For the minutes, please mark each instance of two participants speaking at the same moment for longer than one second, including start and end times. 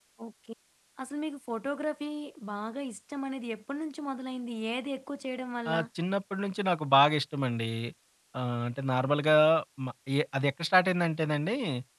none

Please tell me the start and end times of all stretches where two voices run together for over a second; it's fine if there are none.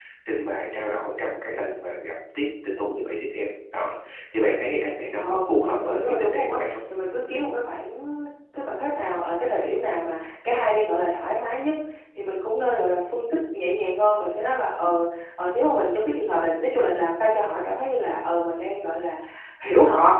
5.2-6.8

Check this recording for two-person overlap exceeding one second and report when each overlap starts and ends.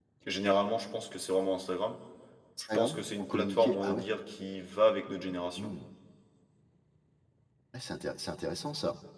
2.7-4.0

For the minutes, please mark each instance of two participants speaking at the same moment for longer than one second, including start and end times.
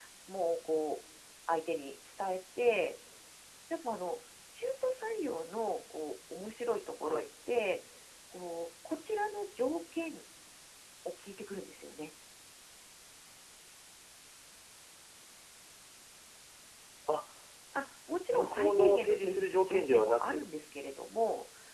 18.3-20.4

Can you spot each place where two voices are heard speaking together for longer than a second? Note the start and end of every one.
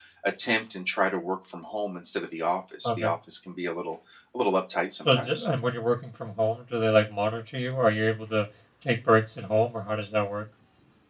none

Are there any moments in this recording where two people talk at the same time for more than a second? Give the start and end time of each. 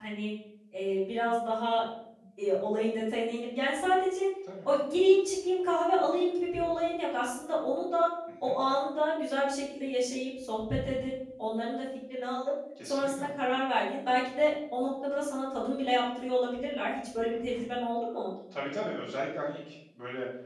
none

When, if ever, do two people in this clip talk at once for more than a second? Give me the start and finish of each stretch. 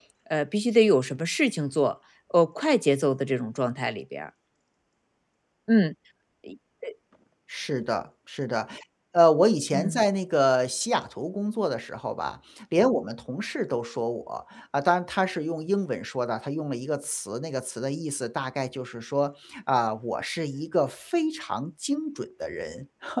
none

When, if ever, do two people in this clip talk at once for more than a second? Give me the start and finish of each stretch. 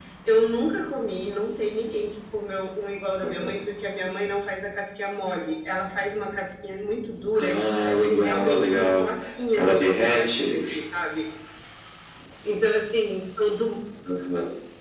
7.4-9.0, 9.6-10.8

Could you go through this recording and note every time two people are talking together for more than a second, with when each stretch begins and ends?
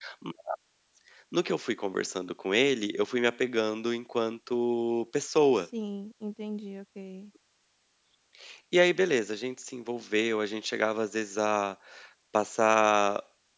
none

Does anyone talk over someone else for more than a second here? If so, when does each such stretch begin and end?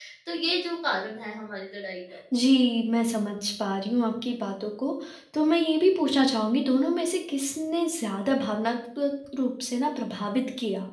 none

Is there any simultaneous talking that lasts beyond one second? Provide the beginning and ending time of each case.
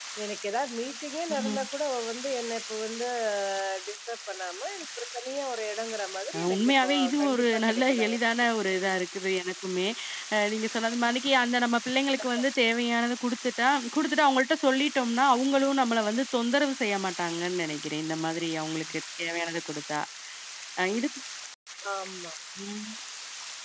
6.4-8.2

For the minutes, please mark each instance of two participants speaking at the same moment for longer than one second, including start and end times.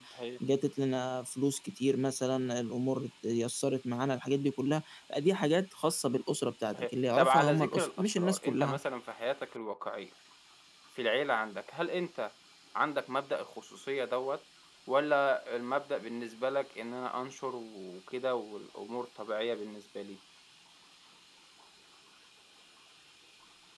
6.7-8.8

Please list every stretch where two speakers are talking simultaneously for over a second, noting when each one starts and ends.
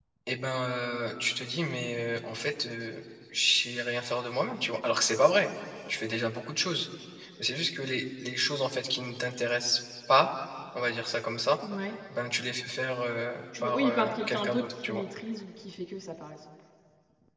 13.6-15.0

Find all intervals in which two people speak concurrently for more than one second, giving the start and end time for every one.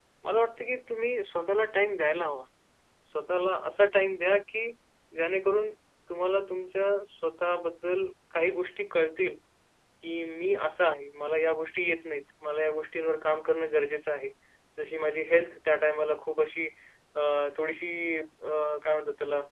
none

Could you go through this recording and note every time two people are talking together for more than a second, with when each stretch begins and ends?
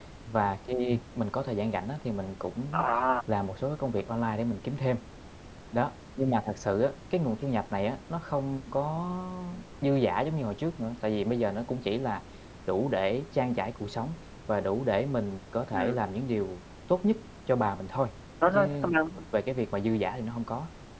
none

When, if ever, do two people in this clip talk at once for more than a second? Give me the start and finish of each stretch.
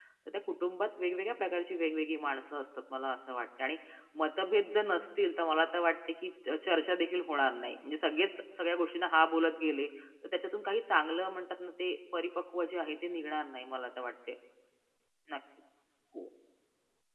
none

